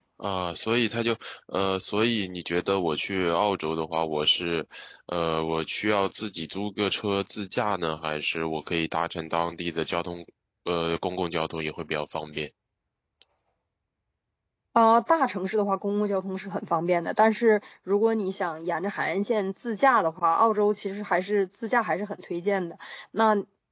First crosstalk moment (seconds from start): none

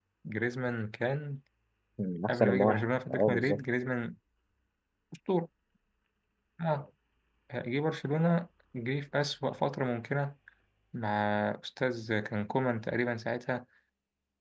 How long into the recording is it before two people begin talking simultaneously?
2.3 s

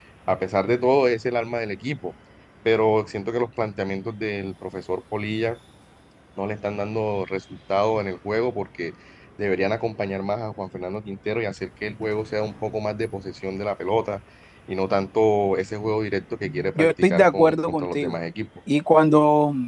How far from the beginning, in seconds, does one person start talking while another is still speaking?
16.8 s

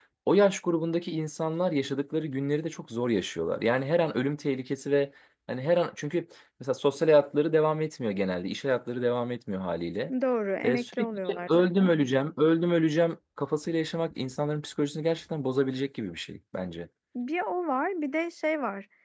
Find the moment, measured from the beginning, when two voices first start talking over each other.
10.6 s

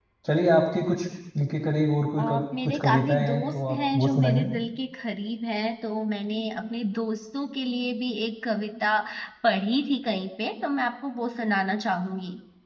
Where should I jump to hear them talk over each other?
2.2 s

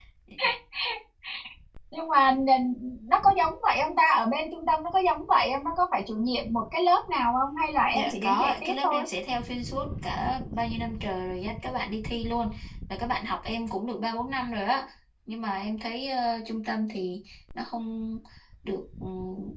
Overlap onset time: 7.8 s

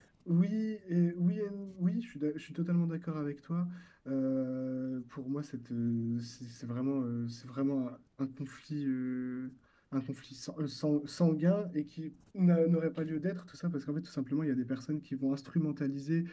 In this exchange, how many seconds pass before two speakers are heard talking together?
none

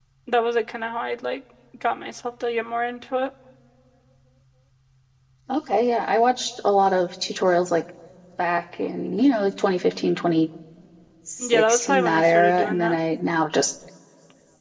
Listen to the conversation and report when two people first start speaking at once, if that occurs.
11.4 s

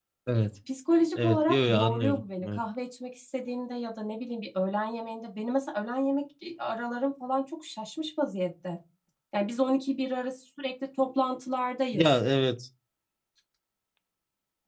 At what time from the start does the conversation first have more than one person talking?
1.2 s

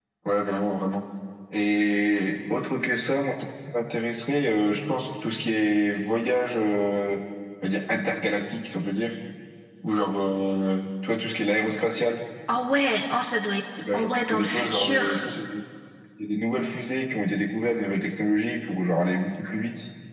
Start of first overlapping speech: 13.8 s

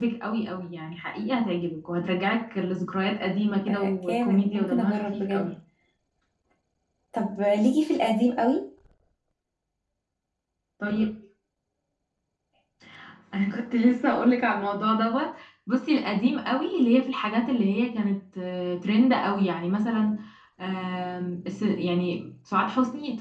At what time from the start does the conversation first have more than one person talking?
3.7 s

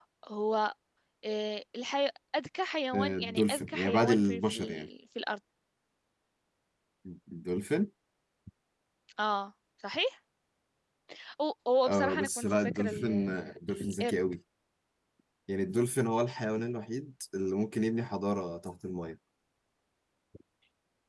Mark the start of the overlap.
2.9 s

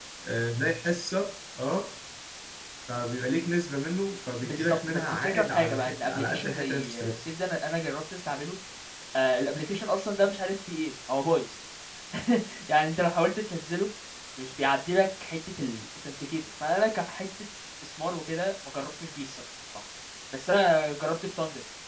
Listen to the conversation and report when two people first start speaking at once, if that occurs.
4.4 s

